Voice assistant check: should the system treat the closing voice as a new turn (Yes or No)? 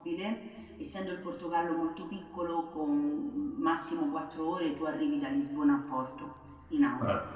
Yes